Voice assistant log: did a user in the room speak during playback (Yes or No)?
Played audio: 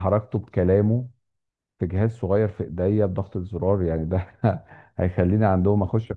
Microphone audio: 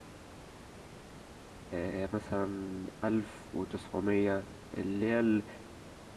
Yes